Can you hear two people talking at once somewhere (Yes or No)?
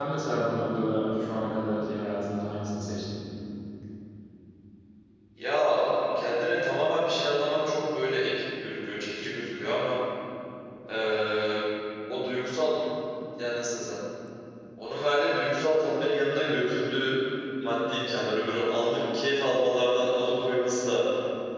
No